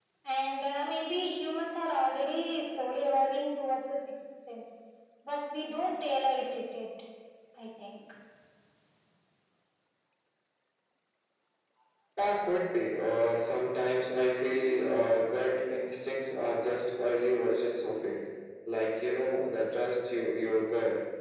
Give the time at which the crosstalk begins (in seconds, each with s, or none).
none